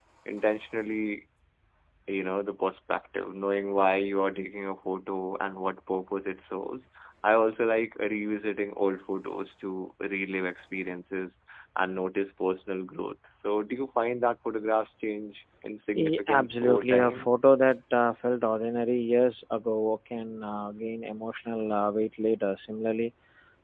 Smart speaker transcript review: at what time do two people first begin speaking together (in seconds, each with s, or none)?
15.9 s